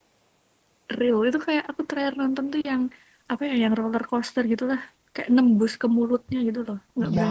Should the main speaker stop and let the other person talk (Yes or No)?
Yes